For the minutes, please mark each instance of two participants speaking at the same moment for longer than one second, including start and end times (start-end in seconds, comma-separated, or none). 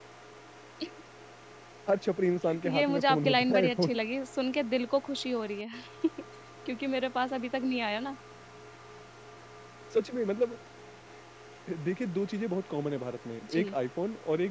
2.6-3.9